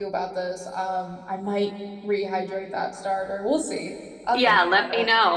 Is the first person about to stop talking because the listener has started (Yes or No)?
Yes